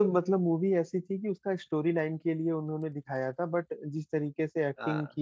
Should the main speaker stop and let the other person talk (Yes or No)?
No